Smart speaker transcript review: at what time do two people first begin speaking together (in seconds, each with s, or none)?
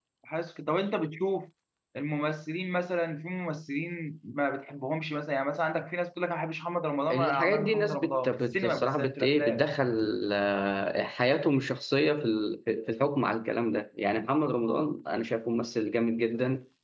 7.1 s